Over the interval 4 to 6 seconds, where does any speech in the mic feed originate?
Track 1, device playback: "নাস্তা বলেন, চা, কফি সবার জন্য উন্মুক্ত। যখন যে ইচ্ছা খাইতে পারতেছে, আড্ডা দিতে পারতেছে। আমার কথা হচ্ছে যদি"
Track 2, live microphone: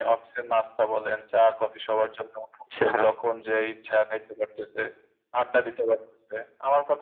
echo only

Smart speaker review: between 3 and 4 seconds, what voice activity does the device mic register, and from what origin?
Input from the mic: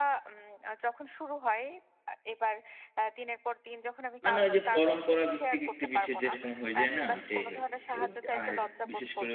echo only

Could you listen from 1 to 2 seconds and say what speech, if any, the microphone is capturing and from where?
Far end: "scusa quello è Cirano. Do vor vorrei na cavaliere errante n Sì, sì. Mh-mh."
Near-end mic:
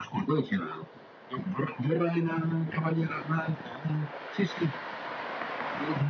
echo only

